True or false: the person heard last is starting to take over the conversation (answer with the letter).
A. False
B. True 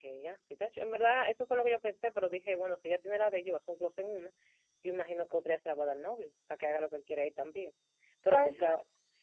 A